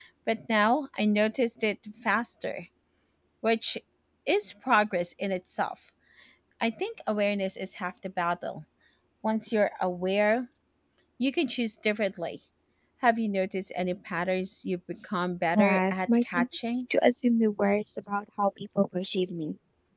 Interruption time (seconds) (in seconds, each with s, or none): 15.5 s